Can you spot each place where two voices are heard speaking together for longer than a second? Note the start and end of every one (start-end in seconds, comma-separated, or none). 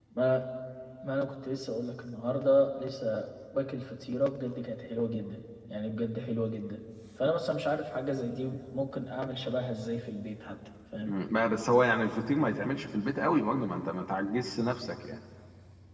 none